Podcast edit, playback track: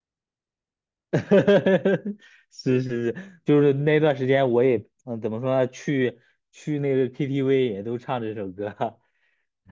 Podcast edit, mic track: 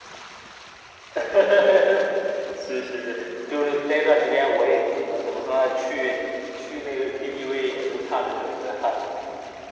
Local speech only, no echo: none

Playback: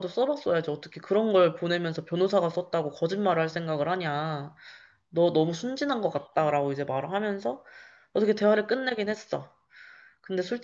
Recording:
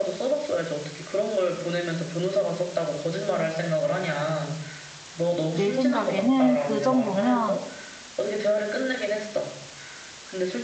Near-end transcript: 내 생각에는 그 정도면,

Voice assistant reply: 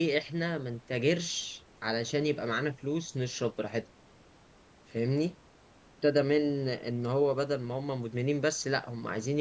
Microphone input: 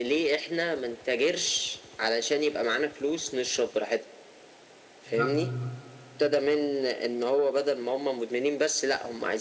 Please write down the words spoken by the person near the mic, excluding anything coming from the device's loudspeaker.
بجد والله

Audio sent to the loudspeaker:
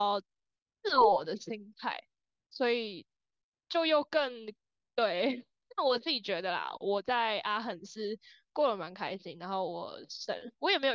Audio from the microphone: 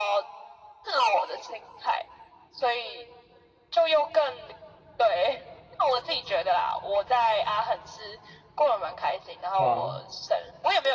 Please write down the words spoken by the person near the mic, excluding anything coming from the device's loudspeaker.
对啊，

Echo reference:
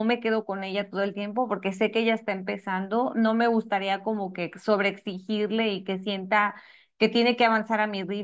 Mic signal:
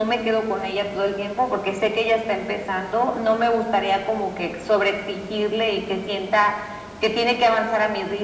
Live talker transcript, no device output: none

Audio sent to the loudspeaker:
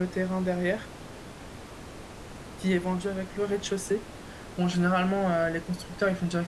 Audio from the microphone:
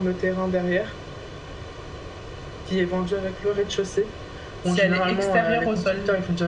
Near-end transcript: Si elle est extérieure au sol,

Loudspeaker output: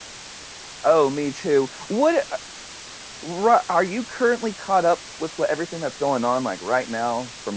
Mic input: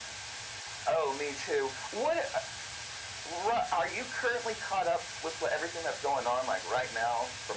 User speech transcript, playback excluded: none

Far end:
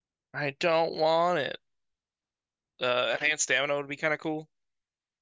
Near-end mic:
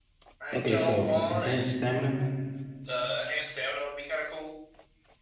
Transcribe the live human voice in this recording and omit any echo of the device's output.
Okay, so enhanced stamina.

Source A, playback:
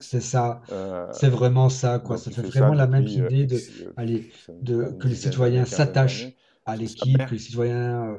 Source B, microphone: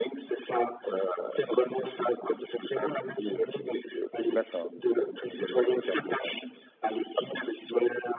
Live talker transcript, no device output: D'accord,

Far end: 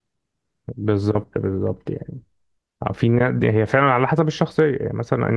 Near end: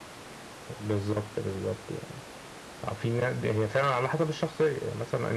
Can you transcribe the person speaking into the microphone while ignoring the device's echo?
none

